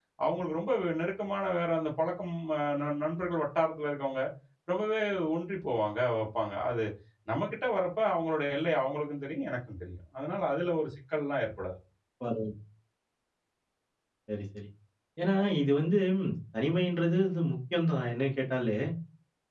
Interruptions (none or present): none